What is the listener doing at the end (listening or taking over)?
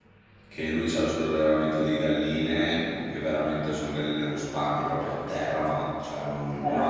listening